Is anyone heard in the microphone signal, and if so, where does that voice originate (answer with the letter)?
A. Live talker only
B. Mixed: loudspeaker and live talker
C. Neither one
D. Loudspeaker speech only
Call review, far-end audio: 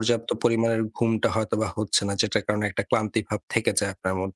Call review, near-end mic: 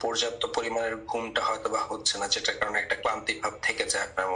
D